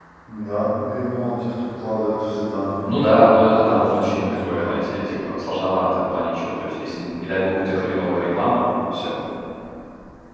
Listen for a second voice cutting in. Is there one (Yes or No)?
Yes